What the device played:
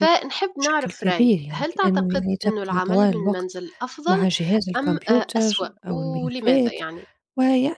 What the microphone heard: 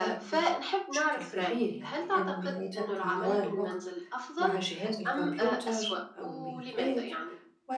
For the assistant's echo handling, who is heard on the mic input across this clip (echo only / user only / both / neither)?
echo only